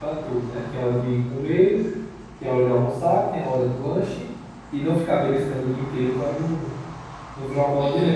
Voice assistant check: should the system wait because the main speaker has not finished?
No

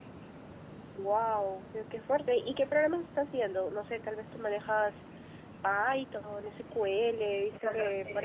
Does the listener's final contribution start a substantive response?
Yes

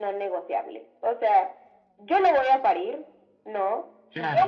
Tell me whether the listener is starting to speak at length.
No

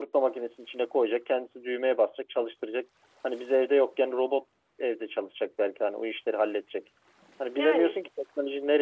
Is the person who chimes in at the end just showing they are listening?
Yes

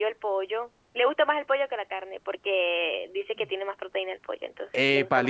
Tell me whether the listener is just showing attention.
No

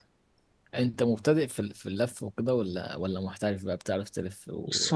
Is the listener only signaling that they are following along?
No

